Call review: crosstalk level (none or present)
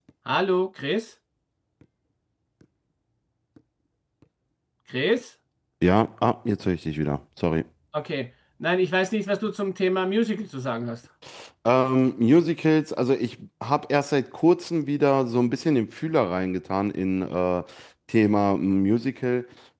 none